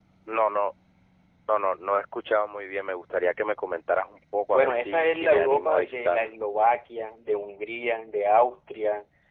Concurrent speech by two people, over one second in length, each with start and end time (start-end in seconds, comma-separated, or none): 4.5-6.3